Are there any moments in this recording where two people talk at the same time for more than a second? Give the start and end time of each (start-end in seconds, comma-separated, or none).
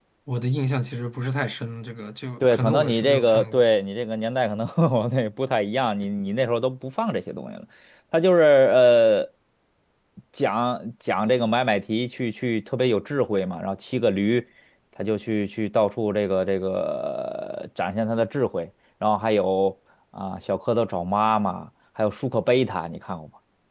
2.4-3.6